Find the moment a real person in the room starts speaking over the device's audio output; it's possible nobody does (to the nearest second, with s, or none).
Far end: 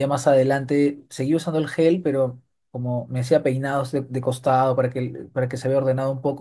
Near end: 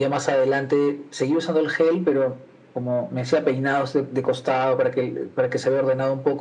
none